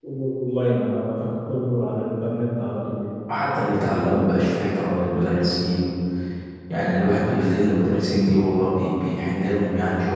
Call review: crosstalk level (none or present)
none